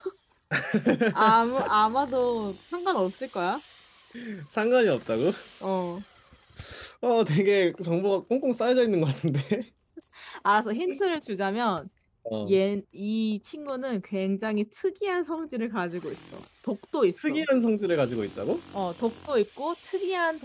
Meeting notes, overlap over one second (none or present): none